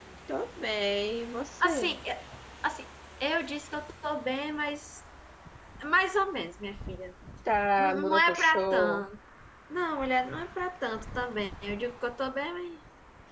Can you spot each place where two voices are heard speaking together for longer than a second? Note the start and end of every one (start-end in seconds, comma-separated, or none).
7.8-9.0